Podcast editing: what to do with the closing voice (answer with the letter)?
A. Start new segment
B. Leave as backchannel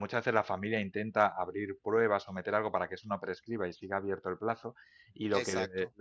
B